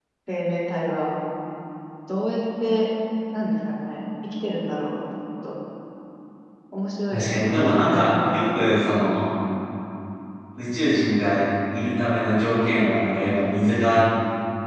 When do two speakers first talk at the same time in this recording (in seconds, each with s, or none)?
7.1 s